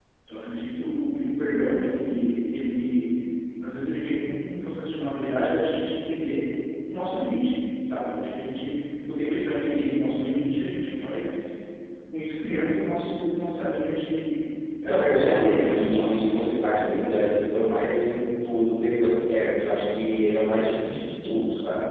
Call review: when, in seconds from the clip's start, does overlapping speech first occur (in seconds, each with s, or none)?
14.9 s